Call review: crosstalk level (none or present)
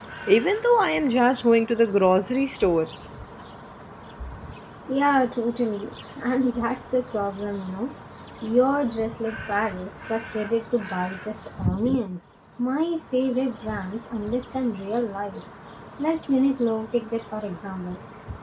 none